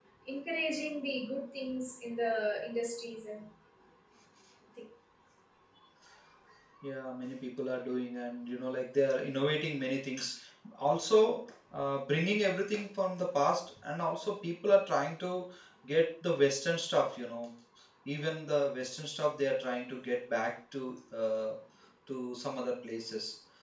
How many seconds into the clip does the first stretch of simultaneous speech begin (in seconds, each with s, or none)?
none